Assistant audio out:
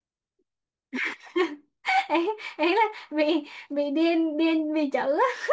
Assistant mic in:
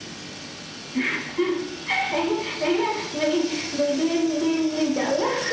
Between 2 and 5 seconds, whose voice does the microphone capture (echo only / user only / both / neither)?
echo only